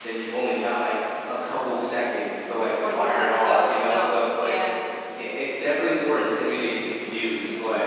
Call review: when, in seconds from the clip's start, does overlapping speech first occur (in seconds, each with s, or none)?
2.8 s